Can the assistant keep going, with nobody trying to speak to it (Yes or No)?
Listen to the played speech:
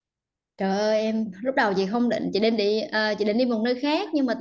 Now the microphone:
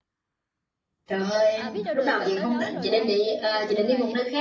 No